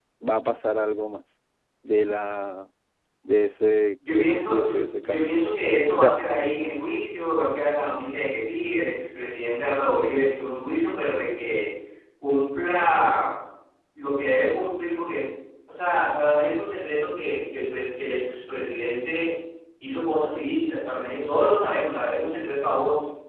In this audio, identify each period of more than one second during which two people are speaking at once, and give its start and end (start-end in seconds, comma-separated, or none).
4.1-5.3